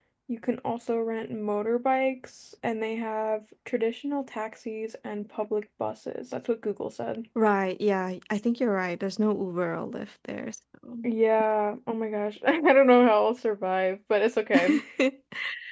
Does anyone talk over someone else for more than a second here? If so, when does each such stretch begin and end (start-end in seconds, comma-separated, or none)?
none